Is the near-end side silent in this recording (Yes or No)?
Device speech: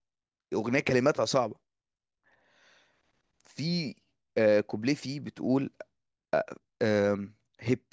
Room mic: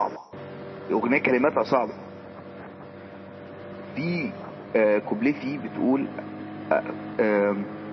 Yes